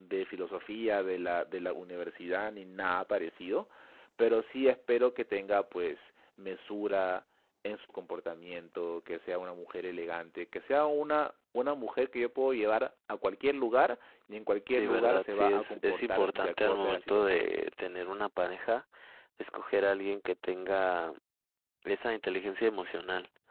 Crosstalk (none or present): present